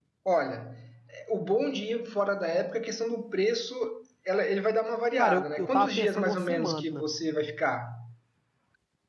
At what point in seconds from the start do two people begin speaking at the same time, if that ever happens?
5 s

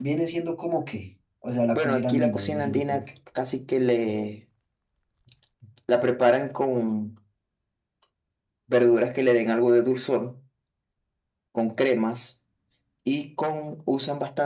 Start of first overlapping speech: 2 s

